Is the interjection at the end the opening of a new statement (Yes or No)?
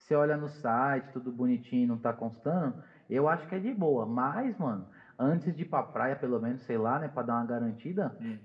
No